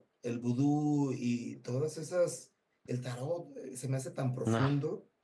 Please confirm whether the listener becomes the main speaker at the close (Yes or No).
No